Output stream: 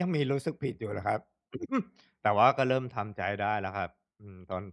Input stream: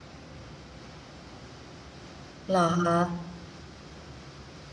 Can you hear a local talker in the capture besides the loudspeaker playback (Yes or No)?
Yes